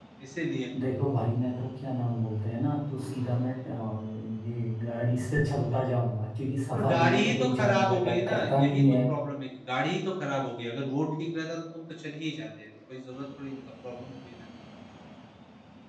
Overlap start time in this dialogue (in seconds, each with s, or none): 6.7 s